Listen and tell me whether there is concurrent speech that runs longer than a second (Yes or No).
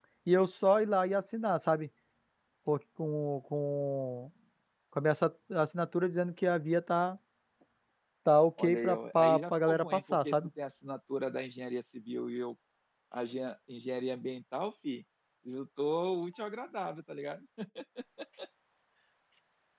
Yes